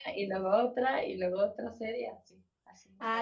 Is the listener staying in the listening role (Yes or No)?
No